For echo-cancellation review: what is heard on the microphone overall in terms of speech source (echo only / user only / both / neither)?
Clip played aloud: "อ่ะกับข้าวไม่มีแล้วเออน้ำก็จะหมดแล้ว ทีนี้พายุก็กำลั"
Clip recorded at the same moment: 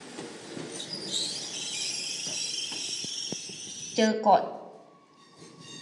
user only